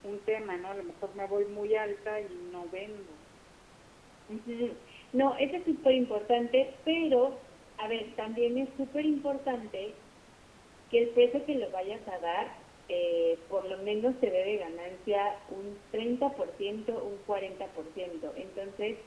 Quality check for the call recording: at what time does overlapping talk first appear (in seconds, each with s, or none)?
none